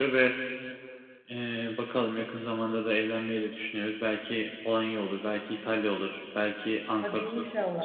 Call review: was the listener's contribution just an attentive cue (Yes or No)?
No